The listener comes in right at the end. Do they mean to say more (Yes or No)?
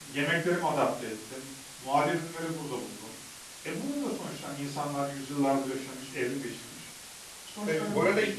Yes